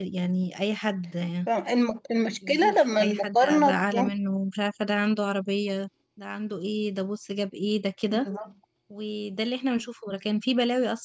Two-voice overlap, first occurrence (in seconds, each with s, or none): 2.4 s